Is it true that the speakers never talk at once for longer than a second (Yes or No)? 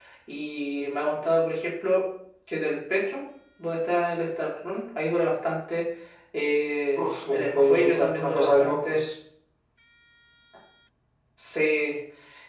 No